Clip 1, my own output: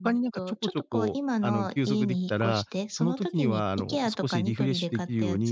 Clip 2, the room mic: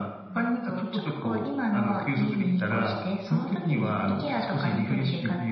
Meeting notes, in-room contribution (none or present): none